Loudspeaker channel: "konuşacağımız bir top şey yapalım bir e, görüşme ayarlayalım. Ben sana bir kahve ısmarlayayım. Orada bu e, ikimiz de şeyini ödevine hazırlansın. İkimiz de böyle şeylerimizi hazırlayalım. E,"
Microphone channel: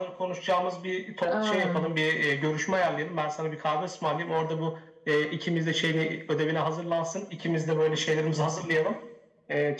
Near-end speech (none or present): present